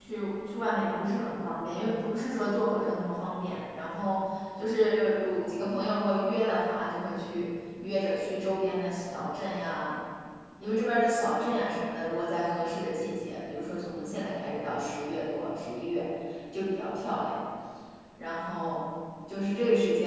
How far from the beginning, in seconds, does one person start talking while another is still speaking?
none

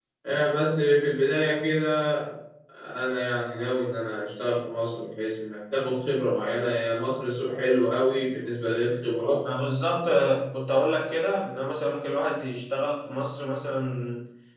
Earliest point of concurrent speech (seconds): none

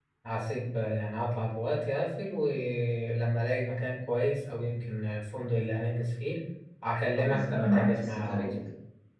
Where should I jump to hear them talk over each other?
7.2 s

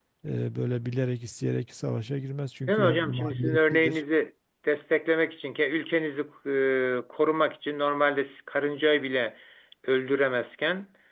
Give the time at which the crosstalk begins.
2.7 s

